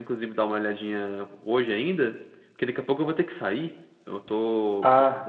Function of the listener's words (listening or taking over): listening